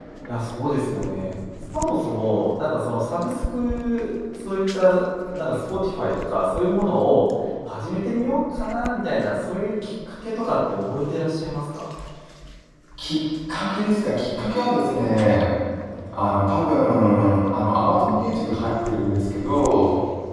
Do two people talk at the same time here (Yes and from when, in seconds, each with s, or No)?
No